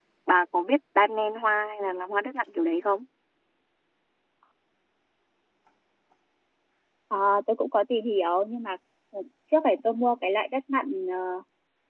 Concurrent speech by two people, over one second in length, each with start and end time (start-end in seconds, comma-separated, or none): none